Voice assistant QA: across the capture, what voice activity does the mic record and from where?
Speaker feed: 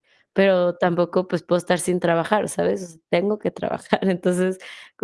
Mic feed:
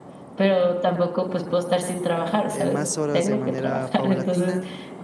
both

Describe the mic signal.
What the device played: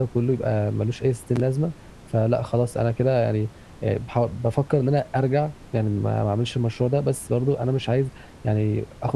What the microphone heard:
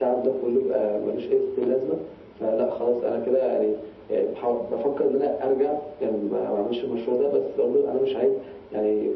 echo only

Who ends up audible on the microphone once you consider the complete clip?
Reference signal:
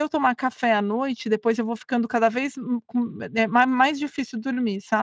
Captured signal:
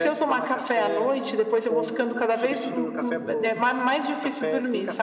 both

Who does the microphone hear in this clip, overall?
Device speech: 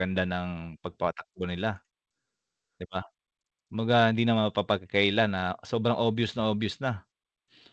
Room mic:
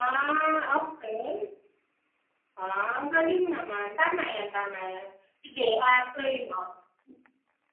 user only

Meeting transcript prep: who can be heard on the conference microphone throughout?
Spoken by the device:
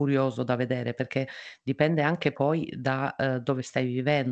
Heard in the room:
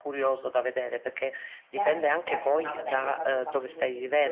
both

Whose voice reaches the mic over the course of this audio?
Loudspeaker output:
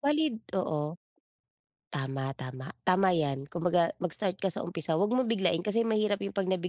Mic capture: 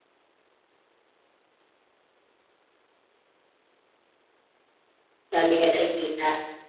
user only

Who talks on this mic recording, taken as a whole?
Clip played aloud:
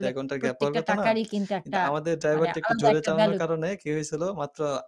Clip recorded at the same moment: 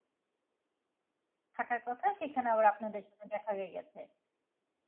user only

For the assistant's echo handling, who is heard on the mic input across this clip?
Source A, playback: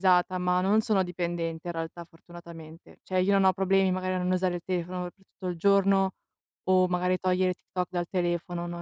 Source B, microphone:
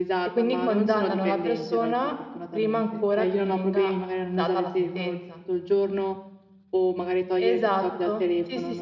both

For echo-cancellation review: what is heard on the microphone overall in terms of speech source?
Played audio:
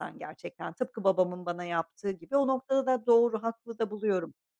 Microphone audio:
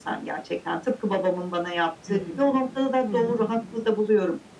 both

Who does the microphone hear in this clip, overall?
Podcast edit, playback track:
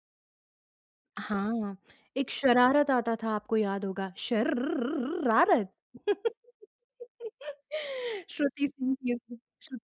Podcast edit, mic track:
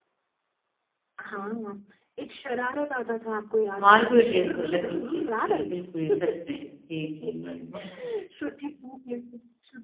both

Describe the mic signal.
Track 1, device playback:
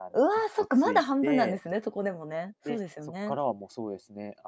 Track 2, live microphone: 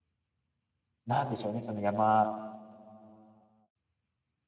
user only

